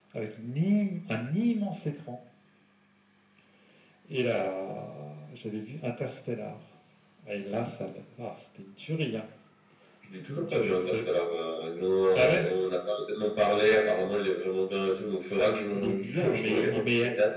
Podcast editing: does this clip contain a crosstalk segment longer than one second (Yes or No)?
Yes